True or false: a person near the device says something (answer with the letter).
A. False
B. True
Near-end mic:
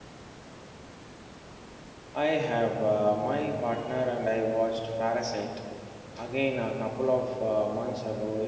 B